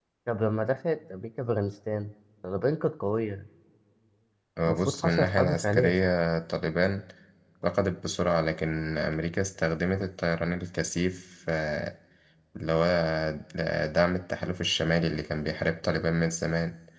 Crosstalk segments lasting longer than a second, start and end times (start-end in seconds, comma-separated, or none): 4.7-6.0